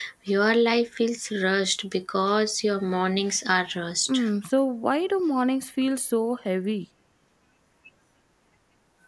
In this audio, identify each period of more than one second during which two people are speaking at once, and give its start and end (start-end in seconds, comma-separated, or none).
none